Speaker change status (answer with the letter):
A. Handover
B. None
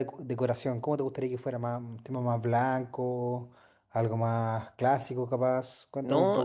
A